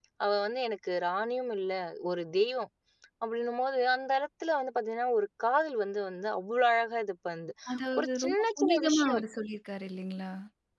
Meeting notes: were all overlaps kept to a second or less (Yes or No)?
No